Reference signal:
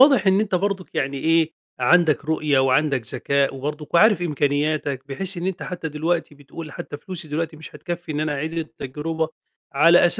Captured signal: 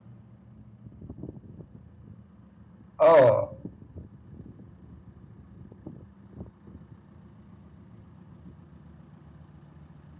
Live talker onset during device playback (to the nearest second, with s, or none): 3 s